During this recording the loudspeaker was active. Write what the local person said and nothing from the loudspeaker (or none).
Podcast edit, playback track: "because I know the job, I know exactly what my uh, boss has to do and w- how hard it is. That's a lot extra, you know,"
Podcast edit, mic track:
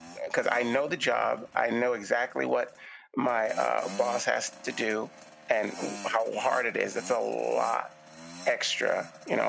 none